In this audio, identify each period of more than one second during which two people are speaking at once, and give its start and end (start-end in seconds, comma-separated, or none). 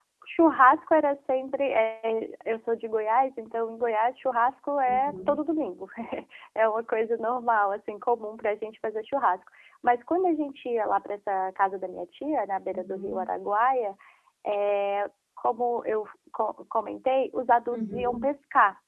none